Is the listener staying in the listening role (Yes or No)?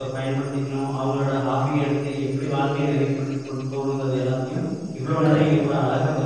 Yes